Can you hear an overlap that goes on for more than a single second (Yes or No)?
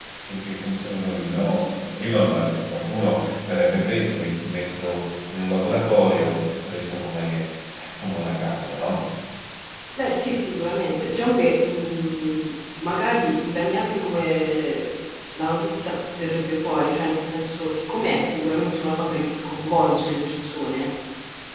No